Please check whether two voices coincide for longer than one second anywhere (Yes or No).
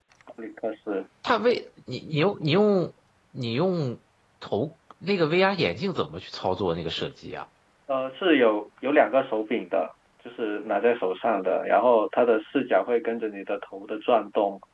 No